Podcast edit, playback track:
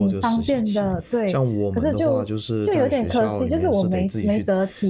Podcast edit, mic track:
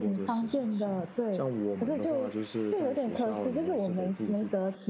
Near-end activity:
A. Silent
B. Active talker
A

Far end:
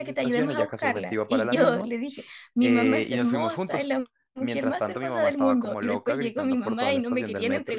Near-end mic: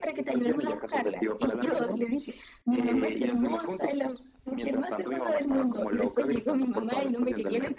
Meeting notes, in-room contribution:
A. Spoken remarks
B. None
B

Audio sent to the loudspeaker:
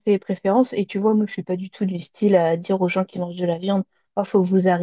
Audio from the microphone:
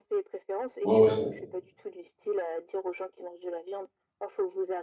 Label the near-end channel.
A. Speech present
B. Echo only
A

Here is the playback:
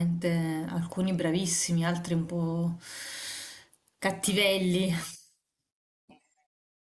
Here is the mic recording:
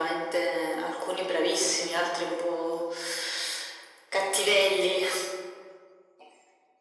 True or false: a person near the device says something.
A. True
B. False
B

